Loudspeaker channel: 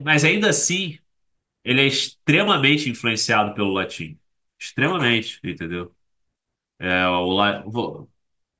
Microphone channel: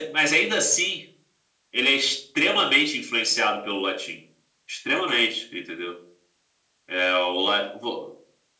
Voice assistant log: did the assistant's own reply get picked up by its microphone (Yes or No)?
Yes